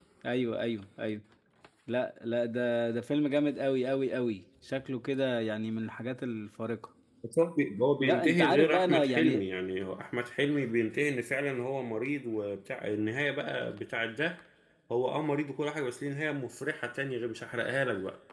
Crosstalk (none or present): present